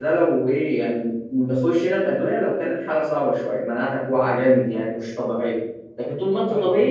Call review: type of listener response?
listening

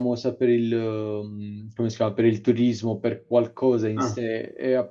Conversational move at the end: listening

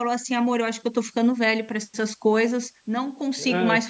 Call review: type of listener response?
listening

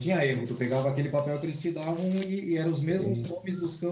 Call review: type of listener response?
listening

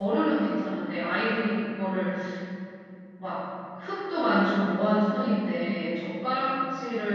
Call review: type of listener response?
listening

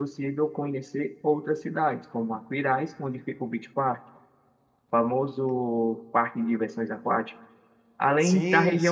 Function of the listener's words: listening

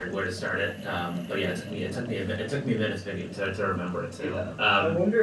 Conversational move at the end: taking over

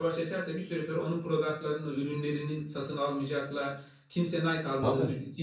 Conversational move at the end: listening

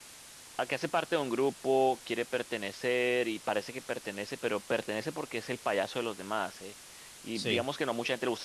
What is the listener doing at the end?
listening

